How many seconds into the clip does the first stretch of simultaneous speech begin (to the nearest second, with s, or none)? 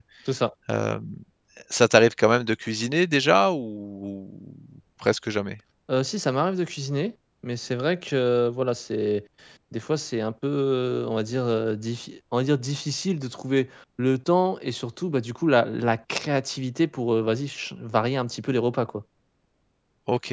none